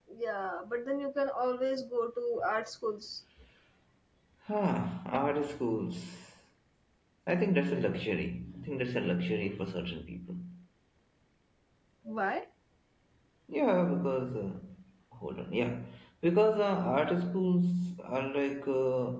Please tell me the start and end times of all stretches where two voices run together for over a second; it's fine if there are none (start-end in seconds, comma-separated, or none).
none